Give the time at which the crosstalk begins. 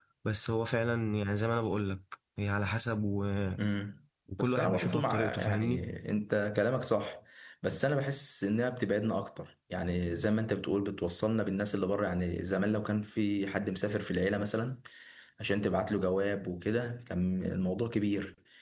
4.4 s

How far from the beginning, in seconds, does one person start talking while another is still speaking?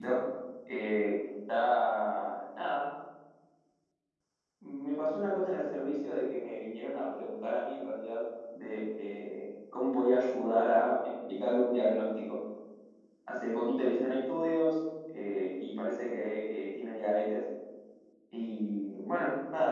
none

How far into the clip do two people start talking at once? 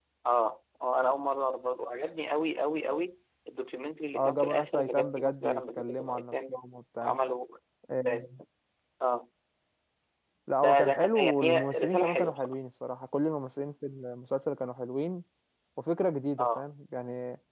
4.1 s

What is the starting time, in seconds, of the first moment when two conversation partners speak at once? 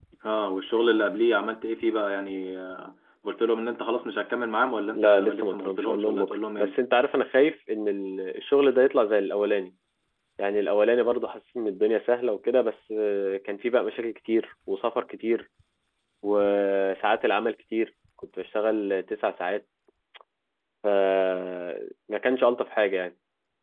4.9 s

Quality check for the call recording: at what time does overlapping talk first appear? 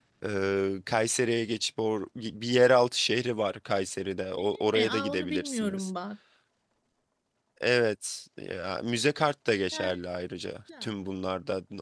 4.3 s

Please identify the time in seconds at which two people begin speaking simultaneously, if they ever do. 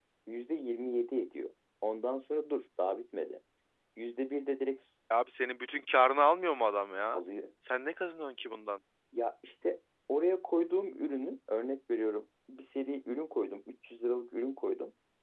none

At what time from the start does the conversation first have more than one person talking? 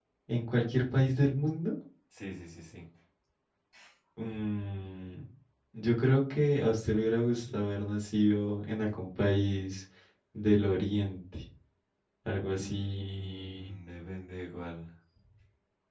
12.5 s

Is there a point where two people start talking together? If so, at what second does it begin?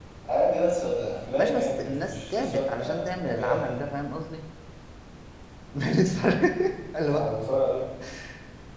1.4 s

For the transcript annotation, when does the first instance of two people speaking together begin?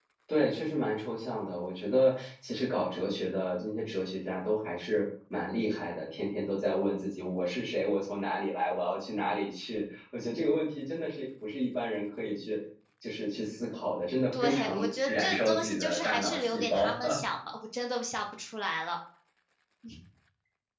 14.3 s

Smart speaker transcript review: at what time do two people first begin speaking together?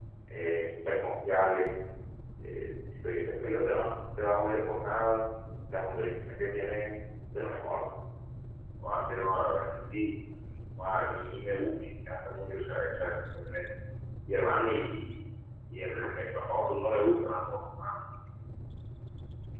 none

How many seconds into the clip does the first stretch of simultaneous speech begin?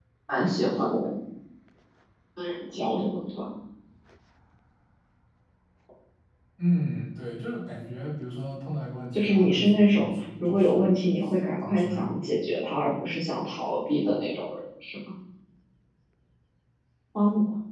9.1 s

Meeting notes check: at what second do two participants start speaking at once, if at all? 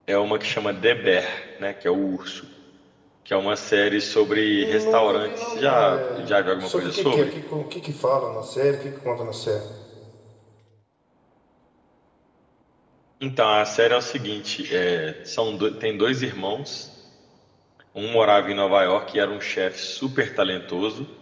4.5 s

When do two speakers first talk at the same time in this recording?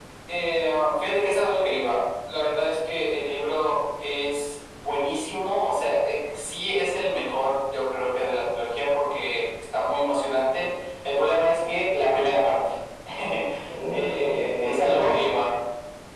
13.9 s

